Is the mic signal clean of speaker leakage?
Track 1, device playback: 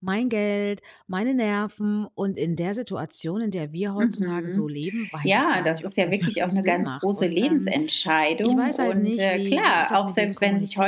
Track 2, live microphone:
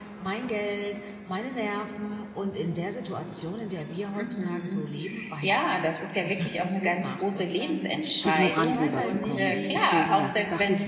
No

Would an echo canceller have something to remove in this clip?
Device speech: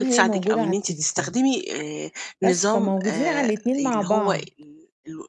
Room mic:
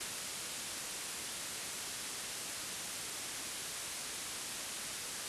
No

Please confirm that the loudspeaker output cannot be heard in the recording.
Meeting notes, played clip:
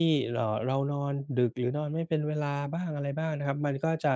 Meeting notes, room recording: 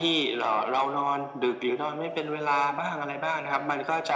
No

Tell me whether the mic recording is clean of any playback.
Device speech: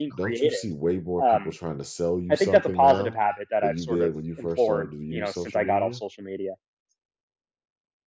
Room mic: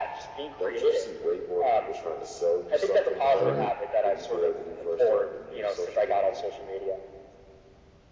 No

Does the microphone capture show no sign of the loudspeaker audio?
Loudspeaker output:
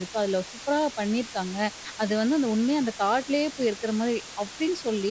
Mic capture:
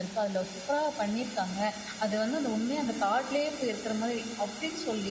No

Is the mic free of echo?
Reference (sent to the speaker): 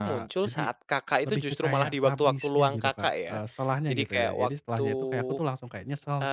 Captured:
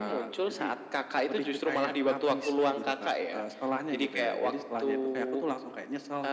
No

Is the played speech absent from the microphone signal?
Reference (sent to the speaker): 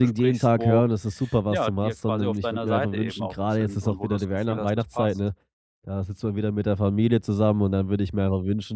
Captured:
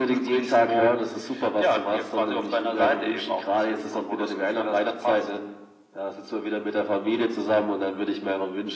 No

